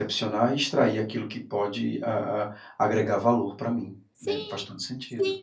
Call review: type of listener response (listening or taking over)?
taking over